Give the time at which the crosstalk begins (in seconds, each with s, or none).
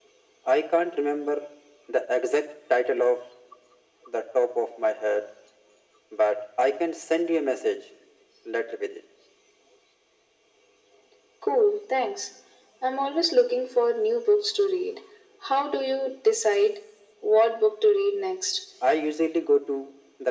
none